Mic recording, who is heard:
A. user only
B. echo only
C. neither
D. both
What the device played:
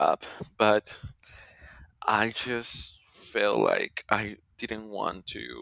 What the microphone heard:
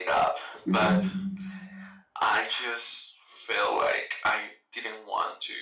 D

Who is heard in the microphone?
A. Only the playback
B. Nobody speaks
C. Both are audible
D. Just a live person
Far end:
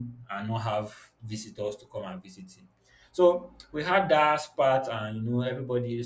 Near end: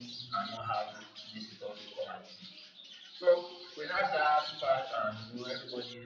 A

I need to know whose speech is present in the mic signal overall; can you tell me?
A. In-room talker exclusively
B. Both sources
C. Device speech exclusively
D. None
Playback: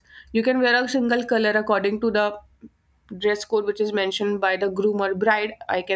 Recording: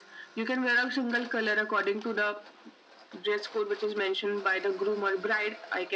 C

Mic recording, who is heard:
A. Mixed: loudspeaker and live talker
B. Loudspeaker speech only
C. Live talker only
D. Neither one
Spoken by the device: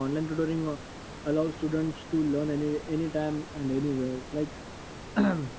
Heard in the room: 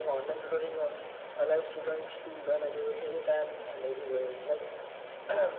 B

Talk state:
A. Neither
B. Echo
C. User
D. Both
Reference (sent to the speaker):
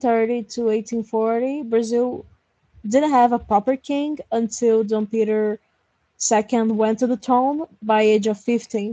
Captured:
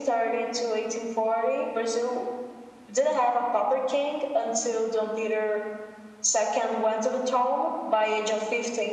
B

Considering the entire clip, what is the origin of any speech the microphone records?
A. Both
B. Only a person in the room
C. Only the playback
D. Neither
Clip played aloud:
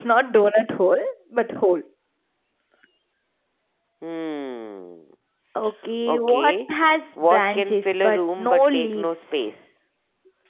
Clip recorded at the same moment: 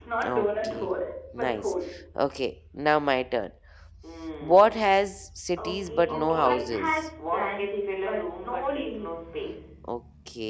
A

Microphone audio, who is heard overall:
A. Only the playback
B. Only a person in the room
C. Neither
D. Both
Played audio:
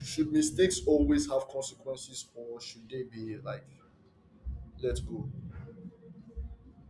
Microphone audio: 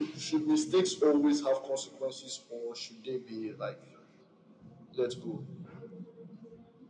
A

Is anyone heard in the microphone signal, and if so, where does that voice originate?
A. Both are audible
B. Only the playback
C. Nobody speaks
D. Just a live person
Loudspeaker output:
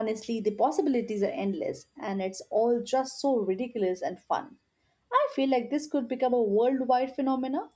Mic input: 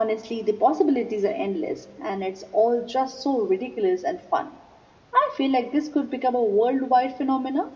B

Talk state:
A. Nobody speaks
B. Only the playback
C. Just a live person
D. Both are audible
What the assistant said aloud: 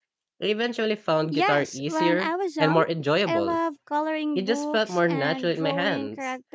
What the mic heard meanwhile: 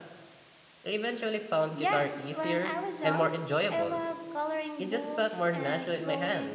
B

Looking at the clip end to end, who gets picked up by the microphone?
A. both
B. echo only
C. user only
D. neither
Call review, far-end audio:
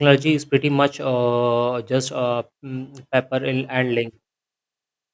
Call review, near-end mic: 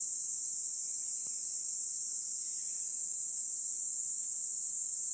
D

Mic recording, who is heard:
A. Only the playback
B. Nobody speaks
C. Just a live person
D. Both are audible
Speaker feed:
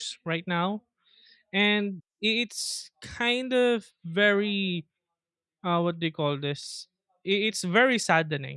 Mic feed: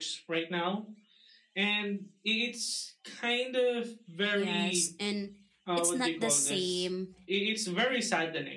D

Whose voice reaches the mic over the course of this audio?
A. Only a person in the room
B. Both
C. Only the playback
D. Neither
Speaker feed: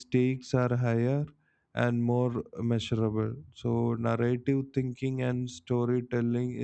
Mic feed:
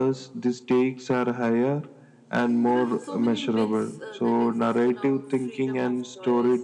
B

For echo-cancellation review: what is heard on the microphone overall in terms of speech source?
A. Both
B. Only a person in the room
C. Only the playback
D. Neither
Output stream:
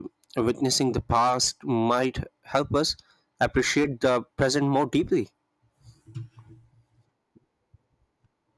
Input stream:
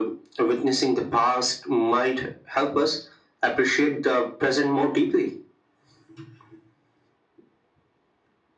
C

